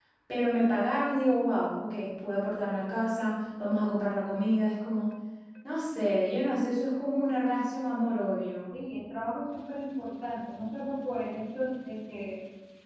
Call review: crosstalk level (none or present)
none